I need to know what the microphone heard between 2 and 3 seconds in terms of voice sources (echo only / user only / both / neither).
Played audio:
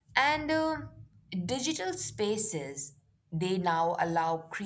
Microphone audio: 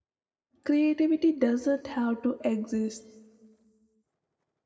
user only